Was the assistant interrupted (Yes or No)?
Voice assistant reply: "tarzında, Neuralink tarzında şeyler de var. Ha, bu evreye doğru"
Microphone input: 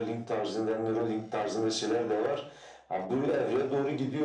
No